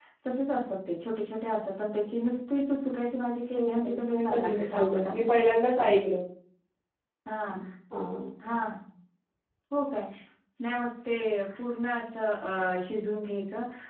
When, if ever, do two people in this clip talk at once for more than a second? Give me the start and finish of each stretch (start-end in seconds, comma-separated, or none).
3.5-5.4